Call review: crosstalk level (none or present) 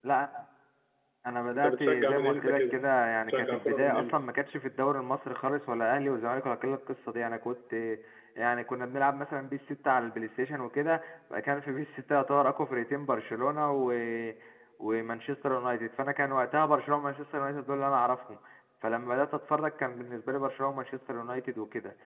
present